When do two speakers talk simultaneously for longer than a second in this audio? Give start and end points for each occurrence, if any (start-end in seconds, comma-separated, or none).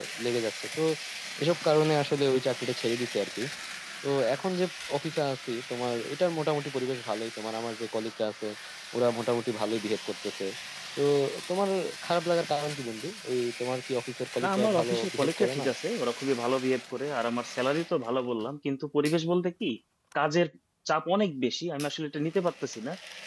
14.4-15.7